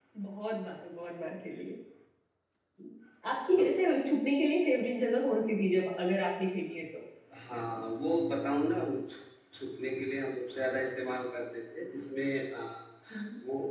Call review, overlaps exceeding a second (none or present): none